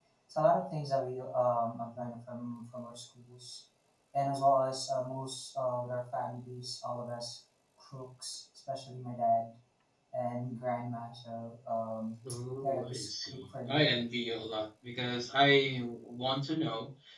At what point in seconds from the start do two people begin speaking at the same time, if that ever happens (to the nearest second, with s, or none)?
13 s